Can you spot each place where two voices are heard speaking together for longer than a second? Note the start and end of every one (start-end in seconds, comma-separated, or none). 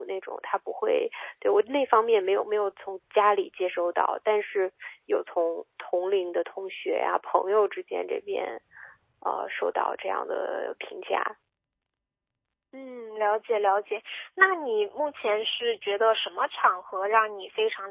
none